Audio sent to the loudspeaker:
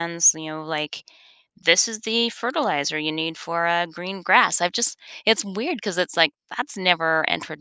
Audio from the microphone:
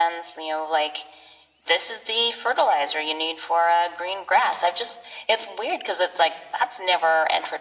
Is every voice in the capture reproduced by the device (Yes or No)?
Yes